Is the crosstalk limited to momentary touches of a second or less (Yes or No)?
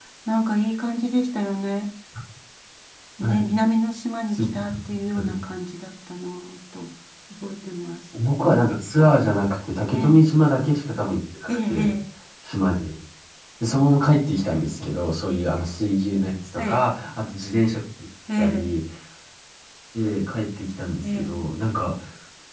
Yes